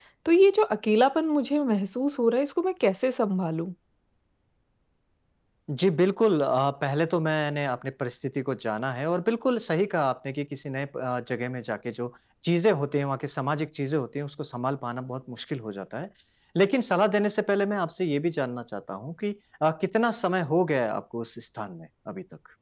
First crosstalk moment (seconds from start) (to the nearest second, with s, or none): none